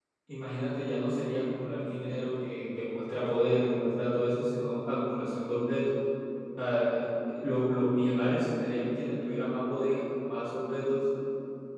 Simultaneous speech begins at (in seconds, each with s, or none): none